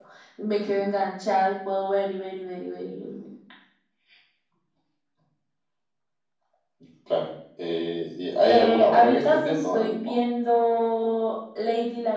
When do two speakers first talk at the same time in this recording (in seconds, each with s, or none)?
8.5 s